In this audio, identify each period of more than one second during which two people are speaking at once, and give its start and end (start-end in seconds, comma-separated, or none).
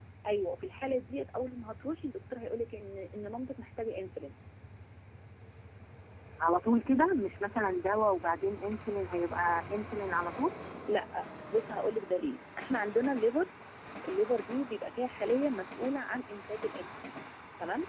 none